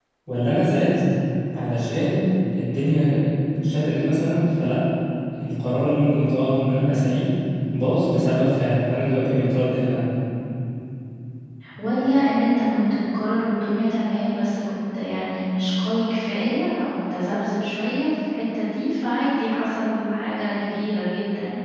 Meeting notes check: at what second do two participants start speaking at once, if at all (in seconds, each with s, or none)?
none